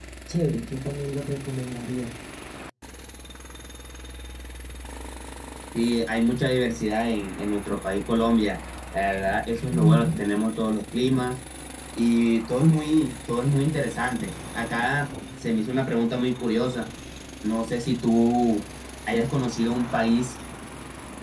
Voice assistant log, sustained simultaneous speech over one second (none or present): none